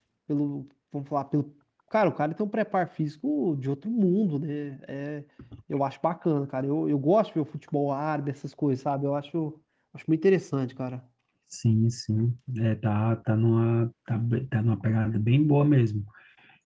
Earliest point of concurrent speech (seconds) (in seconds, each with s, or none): none